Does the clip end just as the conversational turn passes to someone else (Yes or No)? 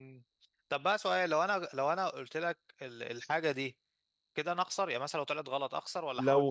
Yes